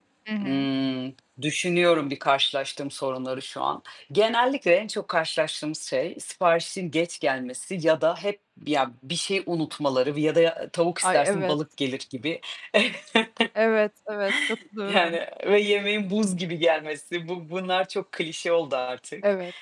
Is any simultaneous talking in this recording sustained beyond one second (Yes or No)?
No